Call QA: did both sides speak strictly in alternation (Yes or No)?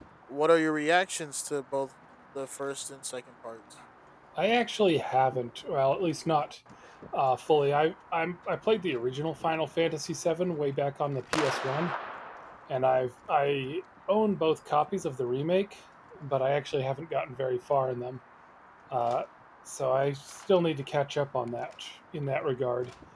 Yes